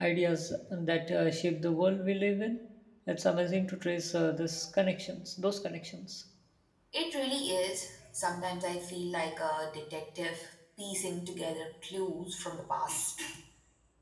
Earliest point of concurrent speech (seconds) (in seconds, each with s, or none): none